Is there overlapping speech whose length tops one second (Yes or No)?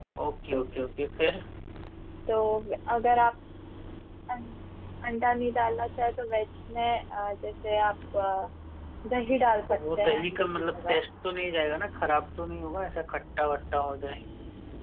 Yes